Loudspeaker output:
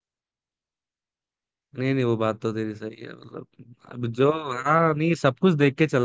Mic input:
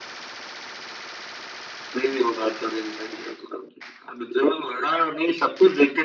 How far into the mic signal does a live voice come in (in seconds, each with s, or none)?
none